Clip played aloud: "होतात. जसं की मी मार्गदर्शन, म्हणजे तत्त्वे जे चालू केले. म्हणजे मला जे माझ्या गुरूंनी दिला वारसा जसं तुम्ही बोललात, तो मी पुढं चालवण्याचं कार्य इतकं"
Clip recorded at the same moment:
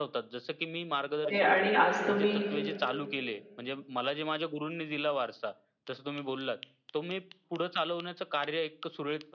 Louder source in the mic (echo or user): user